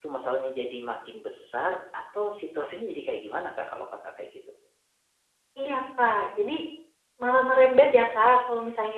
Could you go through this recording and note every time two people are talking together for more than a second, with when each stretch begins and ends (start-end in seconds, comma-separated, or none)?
none